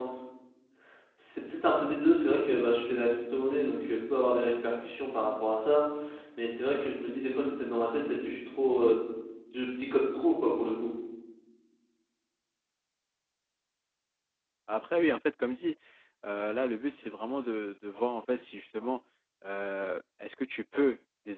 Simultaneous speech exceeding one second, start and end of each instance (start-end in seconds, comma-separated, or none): none